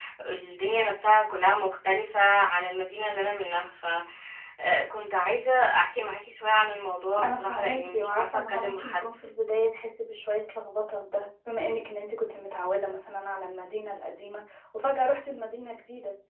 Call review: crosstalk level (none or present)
present